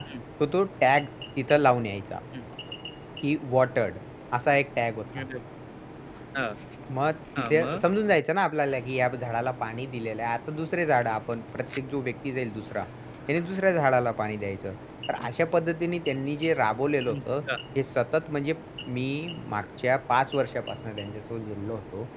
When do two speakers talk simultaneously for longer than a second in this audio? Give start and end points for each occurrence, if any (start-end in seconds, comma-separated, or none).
none